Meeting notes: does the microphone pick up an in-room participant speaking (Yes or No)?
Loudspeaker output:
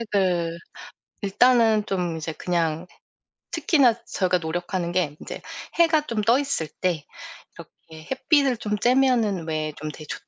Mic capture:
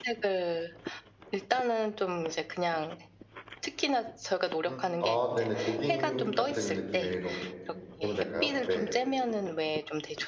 Yes